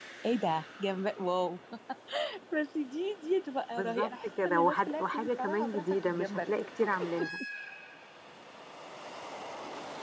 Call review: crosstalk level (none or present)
present